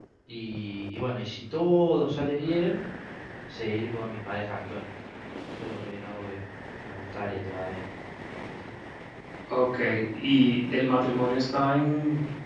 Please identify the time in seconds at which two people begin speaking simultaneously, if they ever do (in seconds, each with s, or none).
none